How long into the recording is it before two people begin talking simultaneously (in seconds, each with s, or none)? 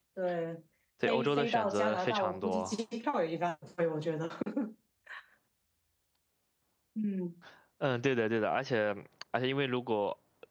1.1 s